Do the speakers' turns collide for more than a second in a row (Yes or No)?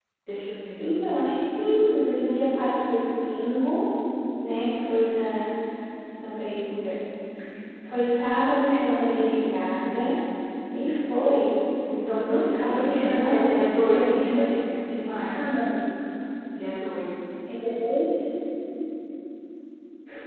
Yes